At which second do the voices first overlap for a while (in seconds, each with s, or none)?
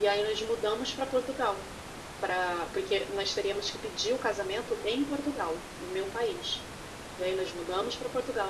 none